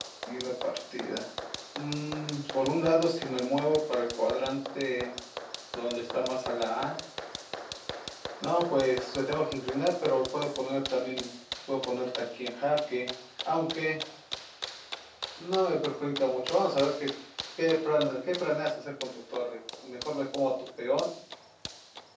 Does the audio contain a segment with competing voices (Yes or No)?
No